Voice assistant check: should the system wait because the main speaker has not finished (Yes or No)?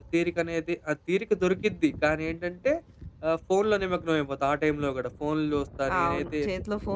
No